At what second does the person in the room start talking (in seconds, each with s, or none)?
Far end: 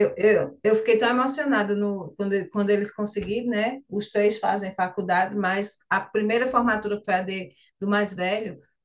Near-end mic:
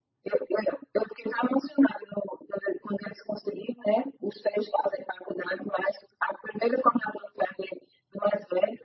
none